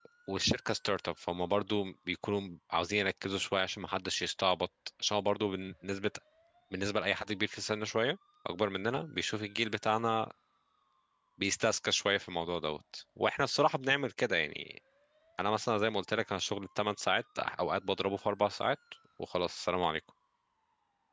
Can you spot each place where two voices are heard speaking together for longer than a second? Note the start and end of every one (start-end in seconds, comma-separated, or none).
none